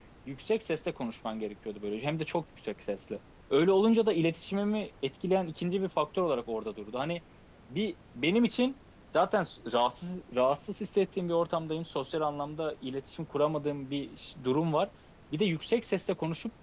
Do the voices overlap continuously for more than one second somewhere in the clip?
No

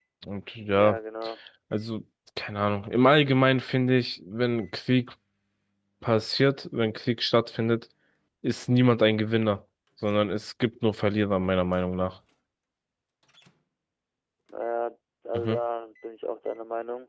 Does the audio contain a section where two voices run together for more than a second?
No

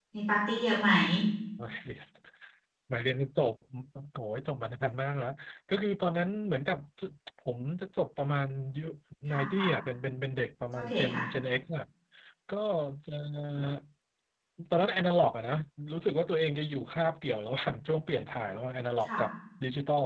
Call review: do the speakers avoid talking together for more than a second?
Yes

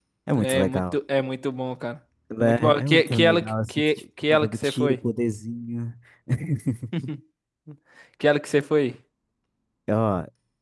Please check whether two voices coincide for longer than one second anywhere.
Yes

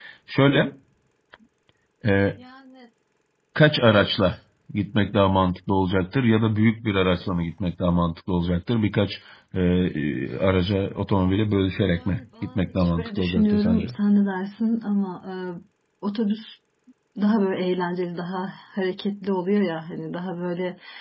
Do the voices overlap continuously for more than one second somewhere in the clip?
Yes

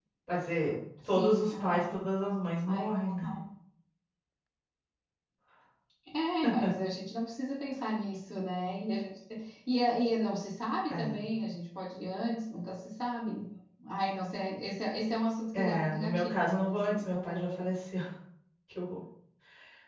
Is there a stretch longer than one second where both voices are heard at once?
Yes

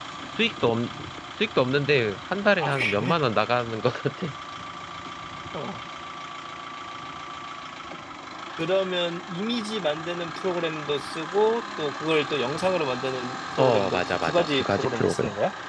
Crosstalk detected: Yes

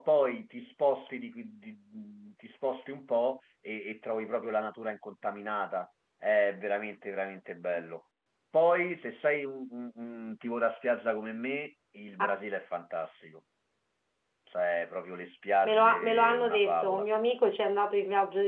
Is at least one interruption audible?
Yes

